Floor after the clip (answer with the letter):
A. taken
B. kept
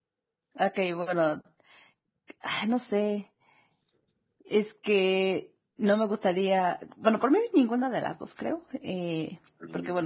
B